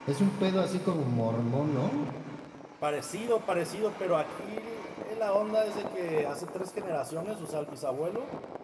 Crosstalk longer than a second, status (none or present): none